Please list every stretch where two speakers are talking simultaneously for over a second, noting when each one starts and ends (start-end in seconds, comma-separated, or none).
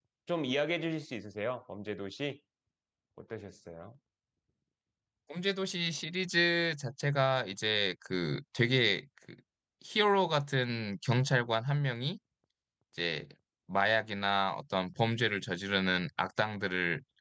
none